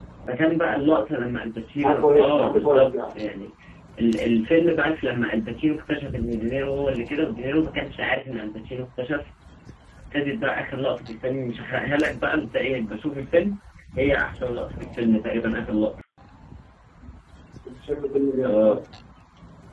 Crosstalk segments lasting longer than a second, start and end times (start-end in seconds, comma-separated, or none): 1.8-3.1